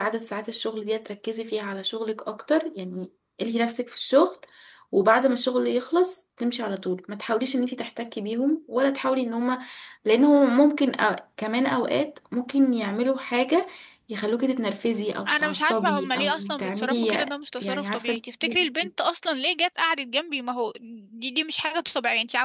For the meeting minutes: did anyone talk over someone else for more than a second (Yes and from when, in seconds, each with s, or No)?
Yes, from 15.3 s